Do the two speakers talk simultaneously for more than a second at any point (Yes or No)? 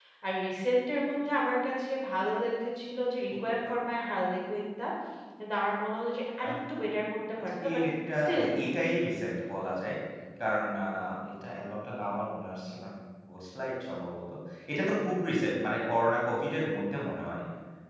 No